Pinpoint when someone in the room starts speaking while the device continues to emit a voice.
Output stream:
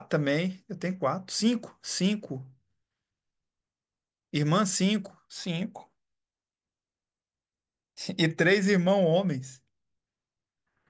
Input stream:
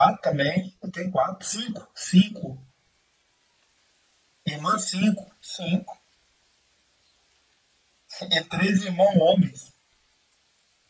none

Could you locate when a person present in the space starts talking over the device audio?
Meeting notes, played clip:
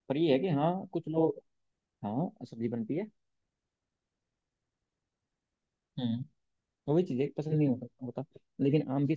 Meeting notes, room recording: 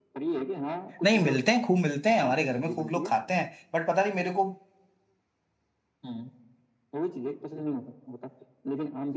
1.0 s

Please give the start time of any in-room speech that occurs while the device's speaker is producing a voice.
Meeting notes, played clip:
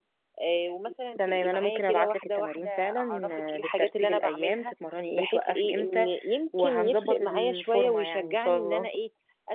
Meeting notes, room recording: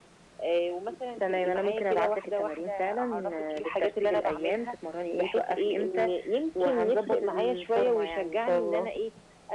none

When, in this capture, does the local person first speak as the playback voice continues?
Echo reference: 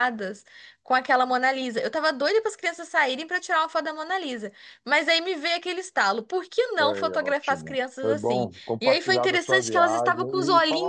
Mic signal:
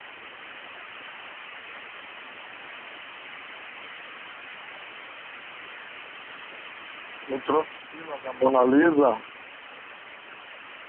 7.3 s

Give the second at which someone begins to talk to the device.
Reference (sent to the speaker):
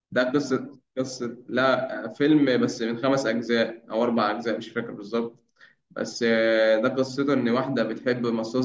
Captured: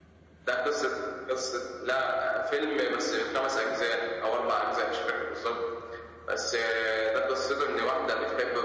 none

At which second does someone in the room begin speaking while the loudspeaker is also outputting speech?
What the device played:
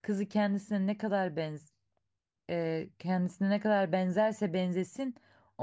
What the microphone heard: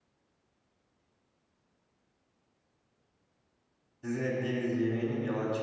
4.0 s

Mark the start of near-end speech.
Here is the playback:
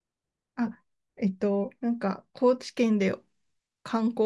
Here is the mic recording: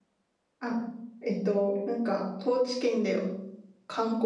none

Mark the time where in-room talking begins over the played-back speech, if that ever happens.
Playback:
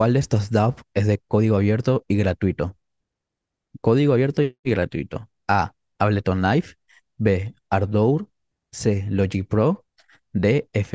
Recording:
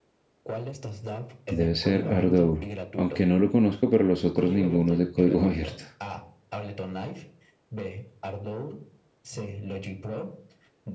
1.5 s

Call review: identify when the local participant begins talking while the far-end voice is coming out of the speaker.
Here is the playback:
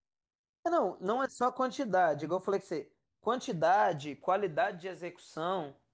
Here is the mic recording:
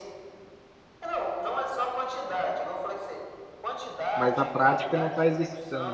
4.2 s

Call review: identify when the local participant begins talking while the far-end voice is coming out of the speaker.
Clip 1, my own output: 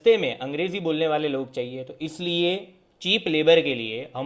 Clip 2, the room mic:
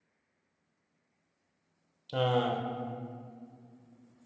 2.1 s

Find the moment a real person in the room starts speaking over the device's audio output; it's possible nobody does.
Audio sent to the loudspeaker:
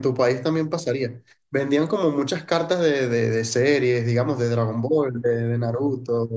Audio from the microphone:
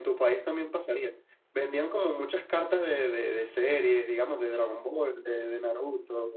none

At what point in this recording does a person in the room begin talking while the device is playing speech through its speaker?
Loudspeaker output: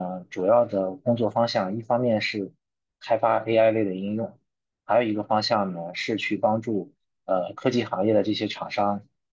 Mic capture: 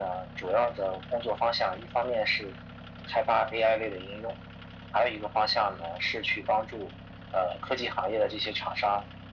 none

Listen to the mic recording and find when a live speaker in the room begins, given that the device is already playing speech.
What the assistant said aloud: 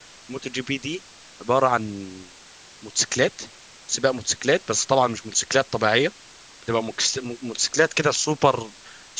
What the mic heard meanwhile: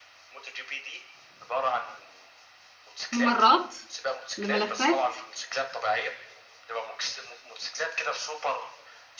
3.1 s

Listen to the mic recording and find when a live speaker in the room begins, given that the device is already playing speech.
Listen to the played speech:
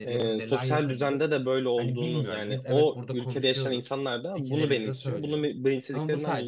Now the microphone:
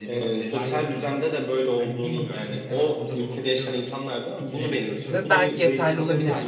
5.1 s

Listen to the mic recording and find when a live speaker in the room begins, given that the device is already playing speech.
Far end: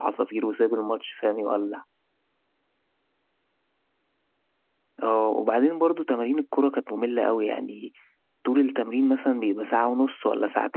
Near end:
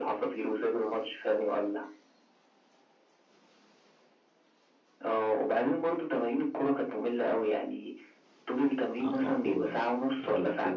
9.0 s

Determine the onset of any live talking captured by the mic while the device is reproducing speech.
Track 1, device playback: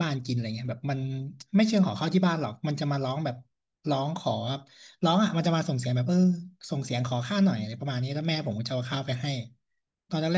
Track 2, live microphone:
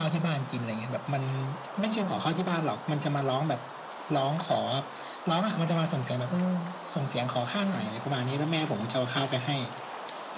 none

